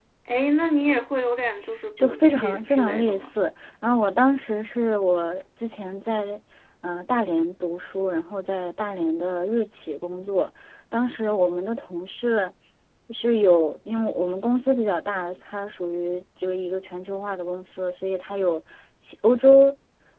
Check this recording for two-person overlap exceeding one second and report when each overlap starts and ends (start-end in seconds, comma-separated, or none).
2.0-3.3